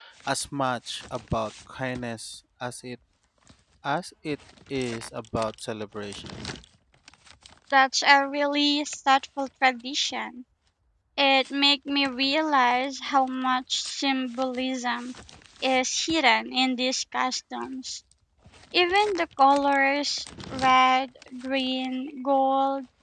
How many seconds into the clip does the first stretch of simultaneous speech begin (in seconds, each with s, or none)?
none